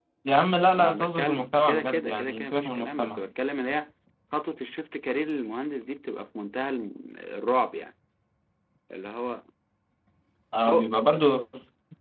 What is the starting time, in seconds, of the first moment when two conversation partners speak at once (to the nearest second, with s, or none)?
1 s